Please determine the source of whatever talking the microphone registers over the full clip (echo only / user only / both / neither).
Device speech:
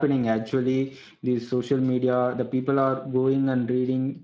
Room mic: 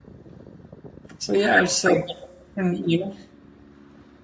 user only